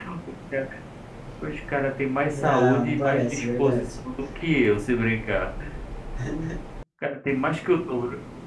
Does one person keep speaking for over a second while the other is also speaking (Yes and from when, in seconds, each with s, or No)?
Yes, from 2.3 s